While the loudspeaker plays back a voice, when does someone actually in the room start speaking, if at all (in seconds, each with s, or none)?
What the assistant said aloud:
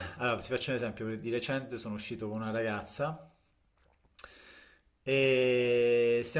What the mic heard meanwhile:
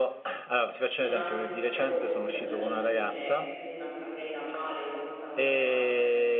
1.0 s